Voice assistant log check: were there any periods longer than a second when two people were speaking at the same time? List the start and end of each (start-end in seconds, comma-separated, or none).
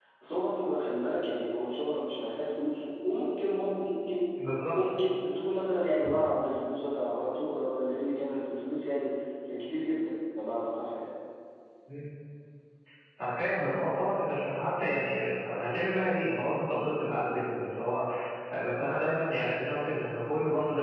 none